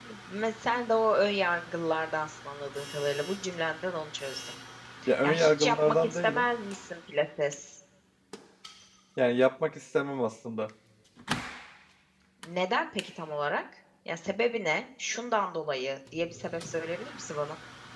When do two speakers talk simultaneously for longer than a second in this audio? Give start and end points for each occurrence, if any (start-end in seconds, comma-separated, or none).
5.2-6.4